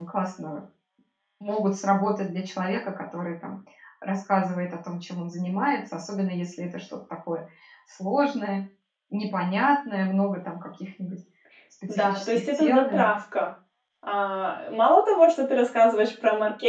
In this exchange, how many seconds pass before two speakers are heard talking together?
11.9 s

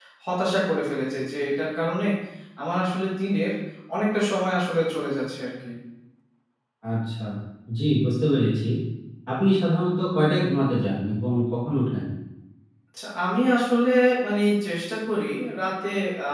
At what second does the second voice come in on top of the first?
none

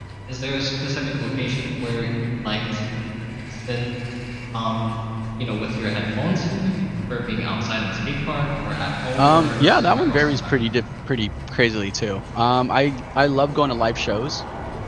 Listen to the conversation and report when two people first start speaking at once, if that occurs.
9.1 s

